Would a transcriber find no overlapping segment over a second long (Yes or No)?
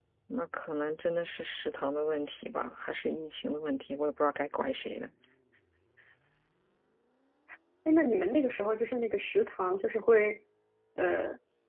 Yes